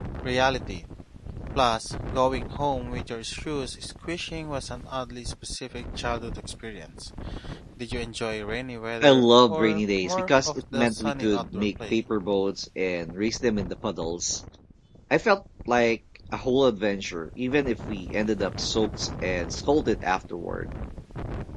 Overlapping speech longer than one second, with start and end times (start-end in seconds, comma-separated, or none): 9.0-12.0